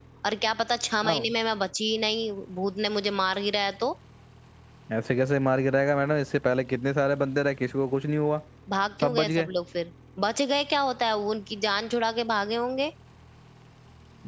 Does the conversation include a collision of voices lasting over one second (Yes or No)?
No